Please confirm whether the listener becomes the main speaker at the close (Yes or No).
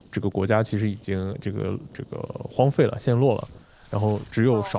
No